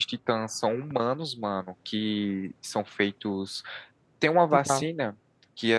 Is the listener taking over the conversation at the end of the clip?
No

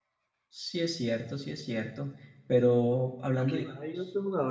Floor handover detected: Yes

